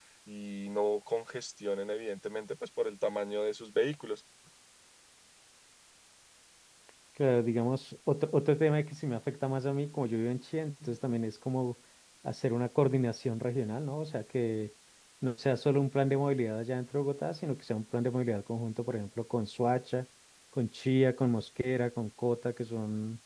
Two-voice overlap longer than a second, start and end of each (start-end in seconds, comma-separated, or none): none